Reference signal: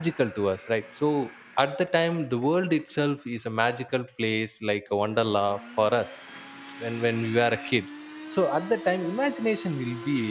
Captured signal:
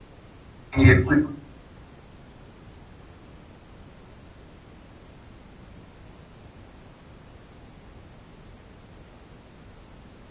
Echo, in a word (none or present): none